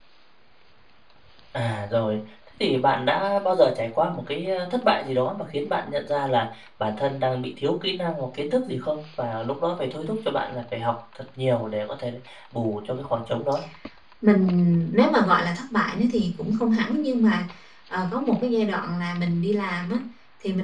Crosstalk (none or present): none